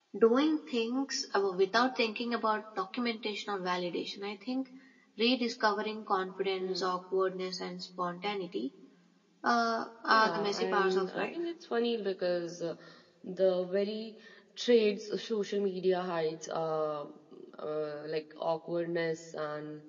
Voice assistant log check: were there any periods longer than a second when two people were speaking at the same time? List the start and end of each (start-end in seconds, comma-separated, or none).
10.1-11.3